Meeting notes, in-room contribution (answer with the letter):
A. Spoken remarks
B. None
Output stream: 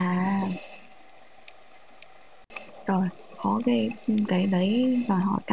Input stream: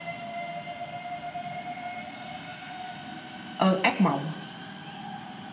A